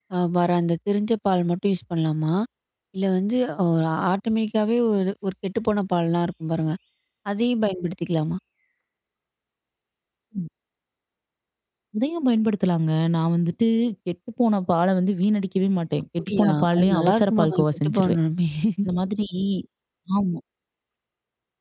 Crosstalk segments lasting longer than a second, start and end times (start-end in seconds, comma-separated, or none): 16.2-18.2